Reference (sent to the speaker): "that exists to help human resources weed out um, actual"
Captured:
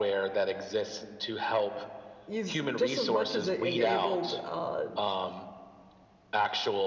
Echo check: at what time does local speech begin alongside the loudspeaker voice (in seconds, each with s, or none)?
2.3 s